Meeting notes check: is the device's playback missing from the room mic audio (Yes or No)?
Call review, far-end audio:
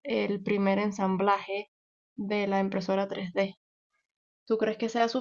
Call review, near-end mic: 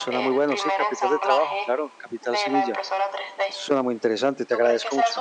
No